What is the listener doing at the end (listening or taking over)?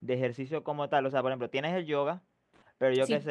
listening